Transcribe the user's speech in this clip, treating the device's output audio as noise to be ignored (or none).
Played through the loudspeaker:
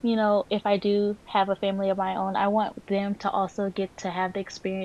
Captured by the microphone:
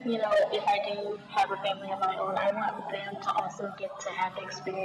none